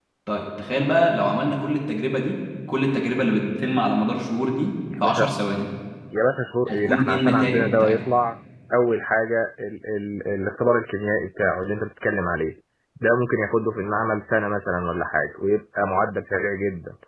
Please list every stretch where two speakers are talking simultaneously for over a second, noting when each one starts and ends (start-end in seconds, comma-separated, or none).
6.7-8.0